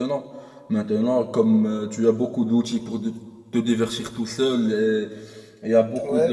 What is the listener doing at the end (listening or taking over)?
listening